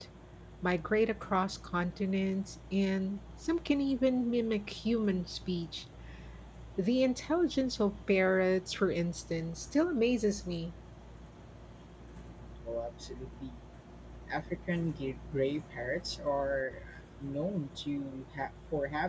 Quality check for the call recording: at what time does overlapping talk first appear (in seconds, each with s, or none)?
none